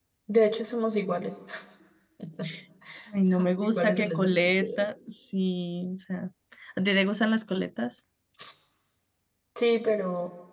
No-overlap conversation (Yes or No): No